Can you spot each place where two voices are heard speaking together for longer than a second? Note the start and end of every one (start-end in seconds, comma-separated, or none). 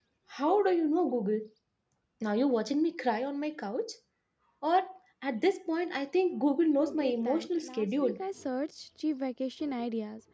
6.8-8.2